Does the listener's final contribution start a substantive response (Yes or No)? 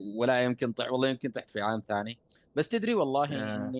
No